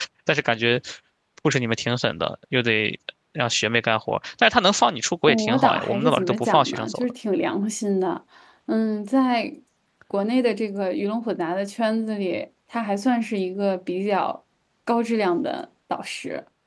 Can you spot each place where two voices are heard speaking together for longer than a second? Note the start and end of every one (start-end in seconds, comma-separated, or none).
5.3-7.1